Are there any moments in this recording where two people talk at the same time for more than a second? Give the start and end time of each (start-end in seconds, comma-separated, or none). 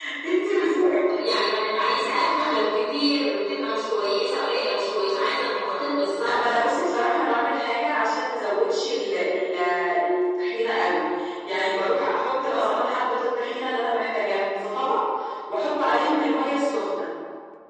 none